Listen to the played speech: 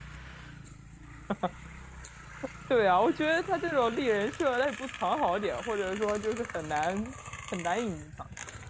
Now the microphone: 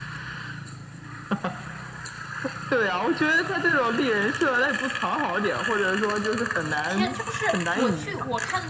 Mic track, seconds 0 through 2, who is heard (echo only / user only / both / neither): neither